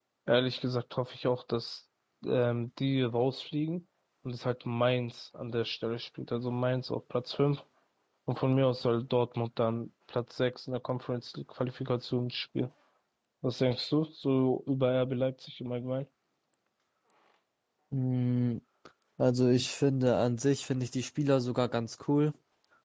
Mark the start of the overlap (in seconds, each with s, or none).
none